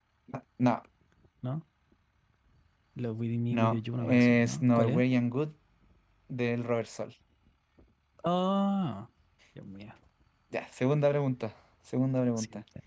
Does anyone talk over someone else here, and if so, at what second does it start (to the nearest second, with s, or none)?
4 s